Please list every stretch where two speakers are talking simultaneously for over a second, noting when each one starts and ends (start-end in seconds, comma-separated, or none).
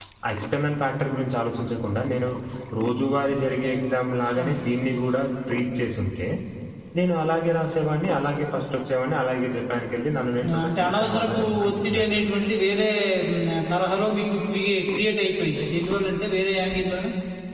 10.6-12.2